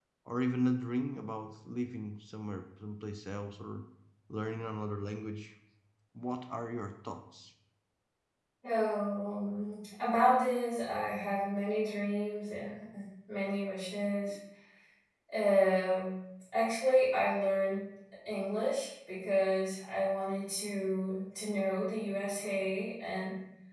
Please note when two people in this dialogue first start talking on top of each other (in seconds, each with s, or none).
none